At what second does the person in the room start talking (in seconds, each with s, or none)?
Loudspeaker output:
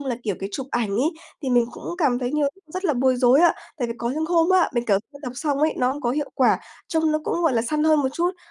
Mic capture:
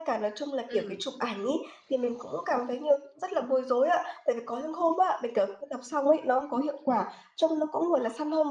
0.7 s